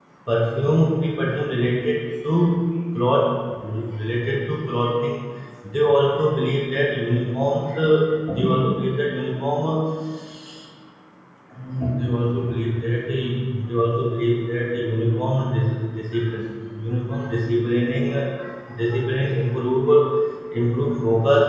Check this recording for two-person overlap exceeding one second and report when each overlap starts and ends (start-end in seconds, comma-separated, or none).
none